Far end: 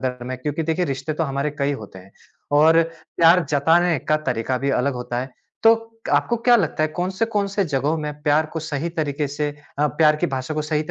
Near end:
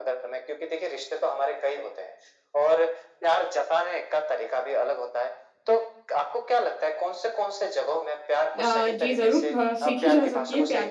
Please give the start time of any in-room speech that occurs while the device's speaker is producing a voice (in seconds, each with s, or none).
8.6 s